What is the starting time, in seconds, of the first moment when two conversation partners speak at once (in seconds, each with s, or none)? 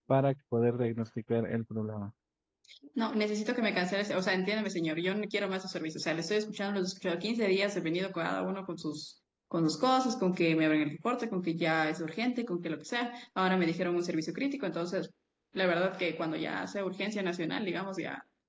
none